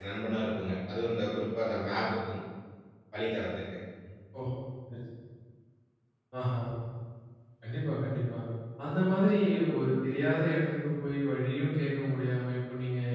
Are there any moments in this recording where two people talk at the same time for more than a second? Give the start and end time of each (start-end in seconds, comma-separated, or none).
none